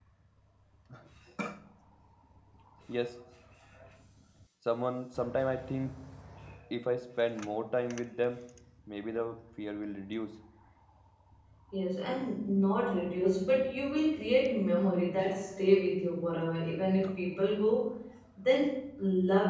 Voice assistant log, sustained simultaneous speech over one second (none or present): none